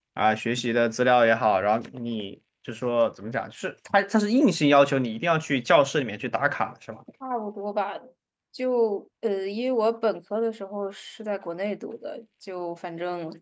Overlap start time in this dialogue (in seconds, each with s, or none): none